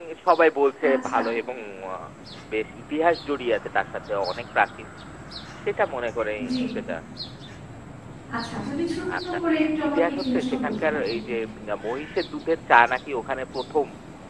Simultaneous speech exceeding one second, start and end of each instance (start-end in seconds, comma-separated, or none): 9.9-11.2